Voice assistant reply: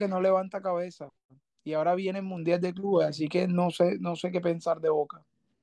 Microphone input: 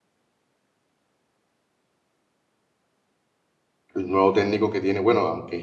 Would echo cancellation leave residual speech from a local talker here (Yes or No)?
Yes